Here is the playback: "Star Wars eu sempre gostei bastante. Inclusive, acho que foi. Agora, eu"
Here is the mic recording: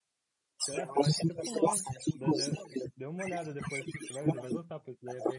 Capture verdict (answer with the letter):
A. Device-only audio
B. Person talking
B